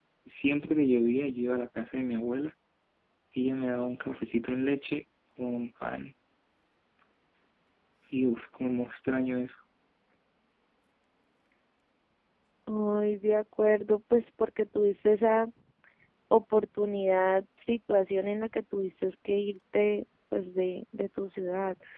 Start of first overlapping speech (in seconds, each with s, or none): none